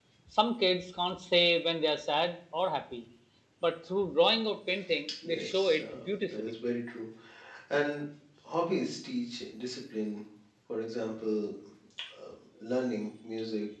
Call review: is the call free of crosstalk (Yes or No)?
No